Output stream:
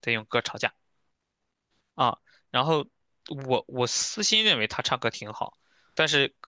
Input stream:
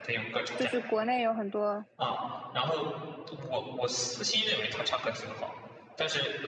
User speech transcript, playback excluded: 就是国内有很多，

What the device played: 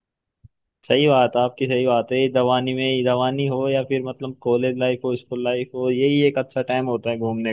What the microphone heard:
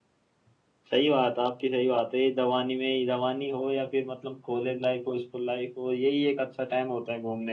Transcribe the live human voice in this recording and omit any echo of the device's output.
none

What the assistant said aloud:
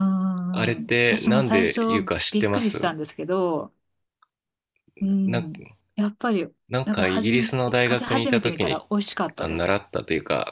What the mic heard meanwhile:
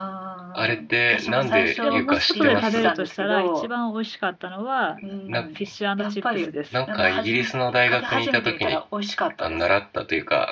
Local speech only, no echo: でももし外で食べるとしたら、一番美味しかったのは、あの、フィッシュチップスです。フ

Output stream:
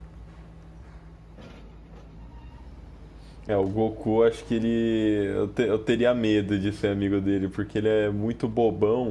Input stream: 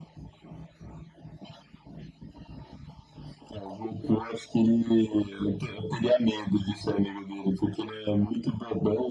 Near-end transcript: none

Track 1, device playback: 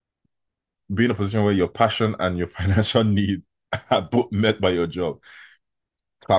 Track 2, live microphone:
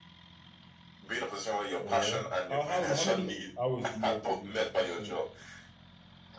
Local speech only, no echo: Oh yeah. How how how many hours do you work a day, would you say?

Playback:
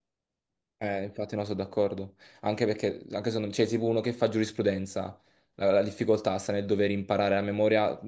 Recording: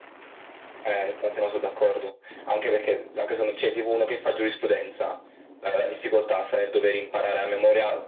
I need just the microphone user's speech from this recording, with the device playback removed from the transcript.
none

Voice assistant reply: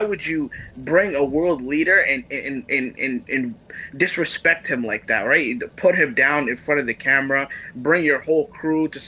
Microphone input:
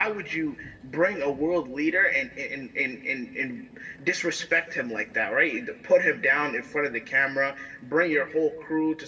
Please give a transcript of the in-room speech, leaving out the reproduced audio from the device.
none

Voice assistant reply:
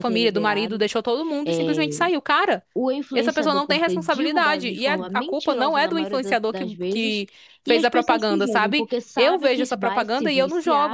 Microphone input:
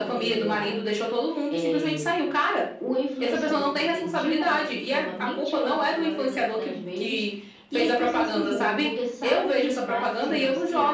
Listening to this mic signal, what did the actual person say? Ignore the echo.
none

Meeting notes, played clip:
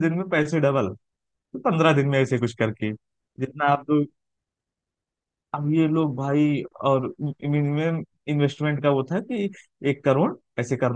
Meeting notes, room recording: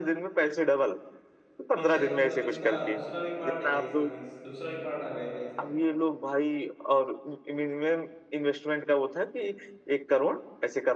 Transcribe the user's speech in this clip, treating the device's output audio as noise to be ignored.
मीन्स यार मतलब इसका दूसरा भी पार्ट है क्या इसका मीन्स दूसरा भी पार्ट आ गया क्या इसका

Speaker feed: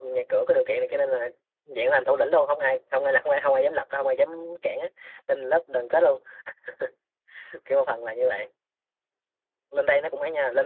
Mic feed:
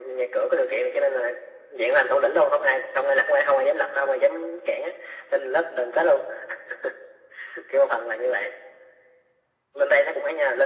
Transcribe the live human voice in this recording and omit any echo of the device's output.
none

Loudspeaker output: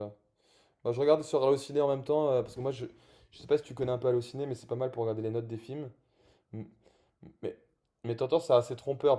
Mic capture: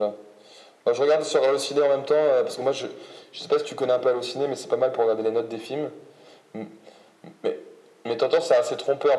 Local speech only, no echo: none

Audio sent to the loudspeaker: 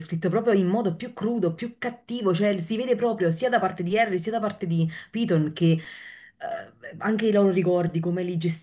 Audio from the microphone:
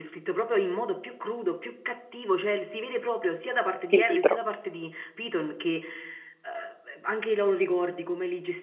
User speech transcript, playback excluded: il libro.

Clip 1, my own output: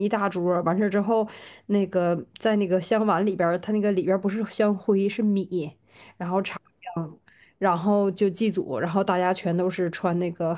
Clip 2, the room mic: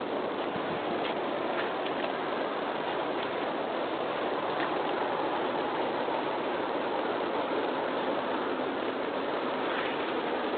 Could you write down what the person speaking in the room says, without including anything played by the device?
none

